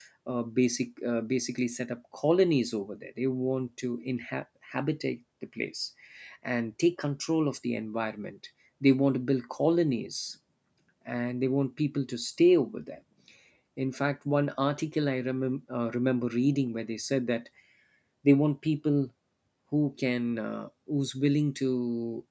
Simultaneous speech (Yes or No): No